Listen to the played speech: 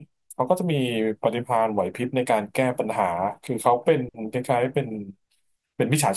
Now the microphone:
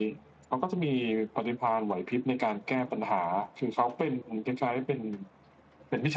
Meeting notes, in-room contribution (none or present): none